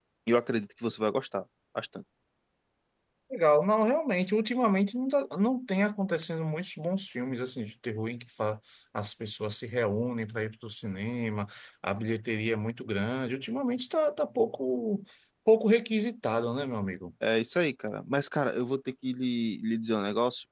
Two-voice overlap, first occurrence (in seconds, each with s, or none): none